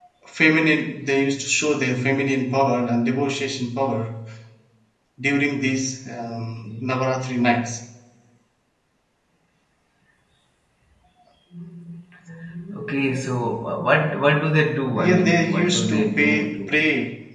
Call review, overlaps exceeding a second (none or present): present